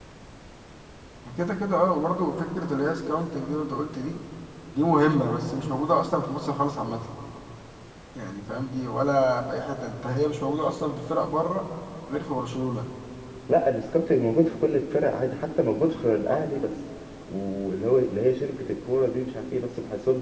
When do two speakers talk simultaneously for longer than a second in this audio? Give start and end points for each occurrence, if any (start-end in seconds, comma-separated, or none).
none